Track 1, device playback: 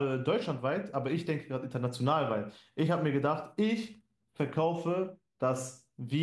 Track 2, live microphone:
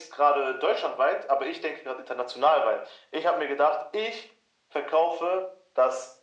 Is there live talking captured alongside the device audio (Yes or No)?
No